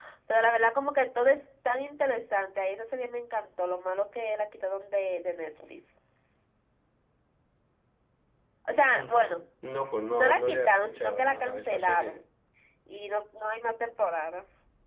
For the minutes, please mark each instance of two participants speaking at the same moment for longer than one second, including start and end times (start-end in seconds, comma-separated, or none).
10.1-12.2